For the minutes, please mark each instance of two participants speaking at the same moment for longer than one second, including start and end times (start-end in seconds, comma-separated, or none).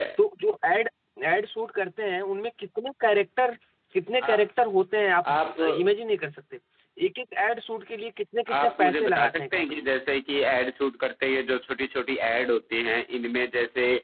8.5-9.9